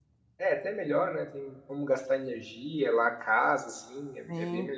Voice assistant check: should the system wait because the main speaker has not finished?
No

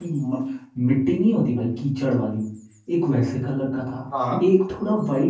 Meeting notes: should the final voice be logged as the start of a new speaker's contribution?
No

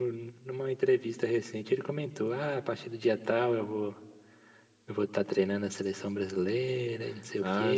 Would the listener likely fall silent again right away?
No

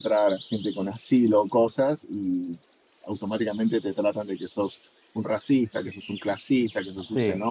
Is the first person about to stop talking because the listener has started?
No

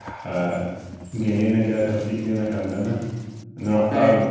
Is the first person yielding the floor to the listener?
No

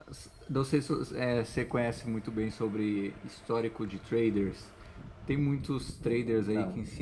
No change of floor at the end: Yes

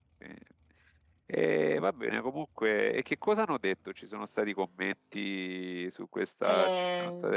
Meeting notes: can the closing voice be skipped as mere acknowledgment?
No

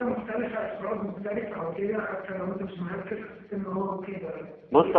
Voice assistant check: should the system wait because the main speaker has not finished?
No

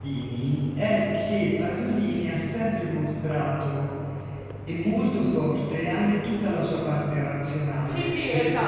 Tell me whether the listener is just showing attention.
No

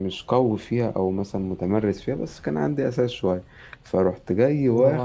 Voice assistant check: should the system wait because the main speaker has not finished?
Yes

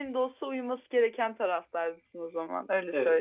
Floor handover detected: Yes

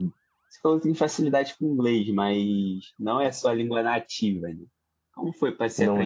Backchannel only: Yes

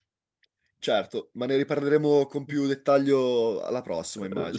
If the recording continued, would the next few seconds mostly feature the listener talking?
Yes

